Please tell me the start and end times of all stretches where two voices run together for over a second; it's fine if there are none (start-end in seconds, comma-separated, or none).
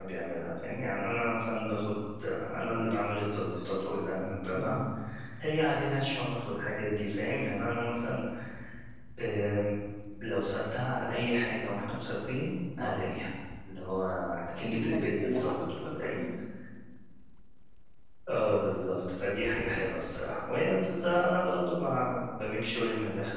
14.7-16.2